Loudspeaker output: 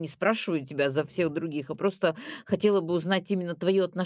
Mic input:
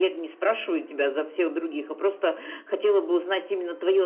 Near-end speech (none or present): none